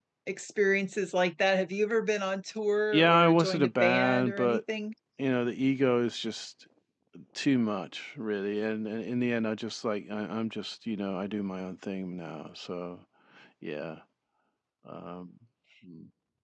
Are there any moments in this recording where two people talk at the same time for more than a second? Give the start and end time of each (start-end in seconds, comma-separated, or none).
2.9-4.6